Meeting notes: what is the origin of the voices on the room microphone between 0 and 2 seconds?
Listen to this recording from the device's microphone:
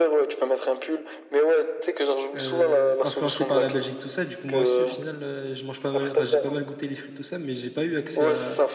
echo only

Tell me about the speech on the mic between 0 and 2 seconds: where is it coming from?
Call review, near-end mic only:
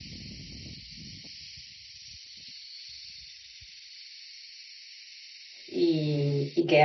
neither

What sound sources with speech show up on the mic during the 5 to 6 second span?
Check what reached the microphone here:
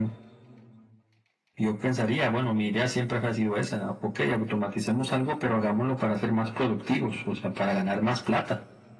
echo only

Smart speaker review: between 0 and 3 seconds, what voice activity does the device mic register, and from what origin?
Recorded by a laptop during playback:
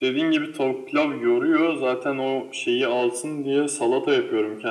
echo only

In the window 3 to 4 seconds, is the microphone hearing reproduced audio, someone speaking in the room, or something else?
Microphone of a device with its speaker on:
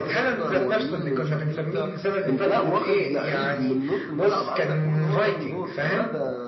echo only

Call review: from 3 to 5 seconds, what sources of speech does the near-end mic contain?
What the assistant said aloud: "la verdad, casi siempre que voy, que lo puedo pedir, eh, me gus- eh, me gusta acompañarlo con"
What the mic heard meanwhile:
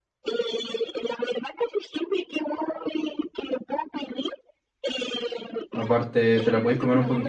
echo only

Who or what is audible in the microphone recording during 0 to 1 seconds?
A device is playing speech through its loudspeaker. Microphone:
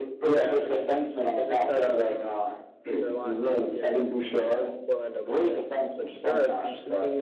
both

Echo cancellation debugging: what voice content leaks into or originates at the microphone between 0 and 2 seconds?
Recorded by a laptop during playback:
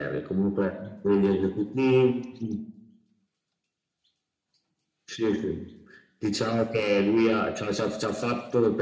echo only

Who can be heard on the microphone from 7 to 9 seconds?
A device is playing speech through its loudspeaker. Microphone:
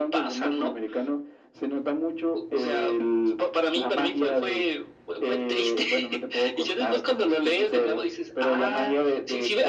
echo only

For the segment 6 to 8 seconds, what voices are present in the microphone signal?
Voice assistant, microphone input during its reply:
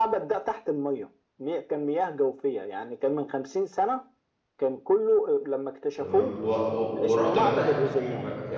both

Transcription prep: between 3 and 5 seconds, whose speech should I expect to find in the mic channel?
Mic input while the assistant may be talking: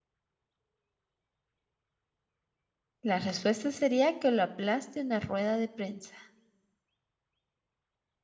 user only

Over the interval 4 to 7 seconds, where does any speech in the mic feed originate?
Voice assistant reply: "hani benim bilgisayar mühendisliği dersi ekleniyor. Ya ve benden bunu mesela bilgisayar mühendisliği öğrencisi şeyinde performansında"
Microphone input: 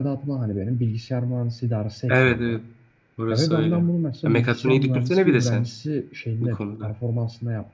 both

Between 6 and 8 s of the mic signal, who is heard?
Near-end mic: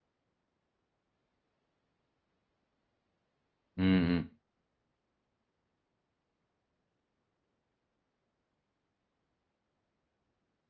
neither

